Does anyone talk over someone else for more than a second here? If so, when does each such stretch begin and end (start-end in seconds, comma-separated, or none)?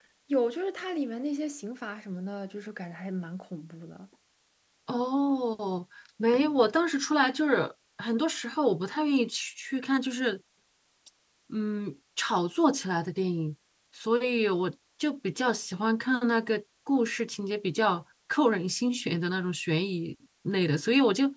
none